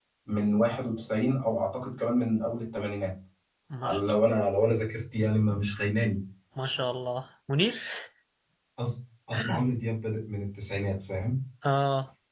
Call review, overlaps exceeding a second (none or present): none